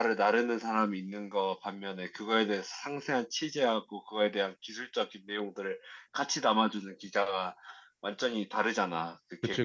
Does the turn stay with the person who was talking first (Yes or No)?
No